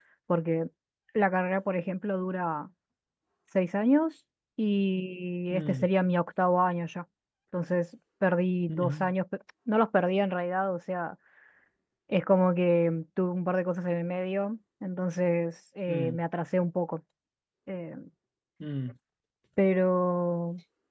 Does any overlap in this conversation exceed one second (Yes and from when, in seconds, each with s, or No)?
No